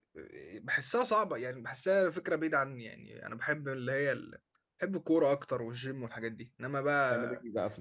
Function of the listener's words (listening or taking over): taking over